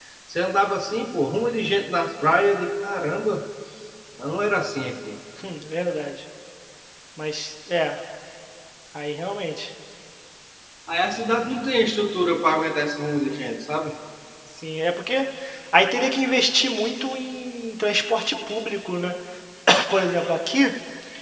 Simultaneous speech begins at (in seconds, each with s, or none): none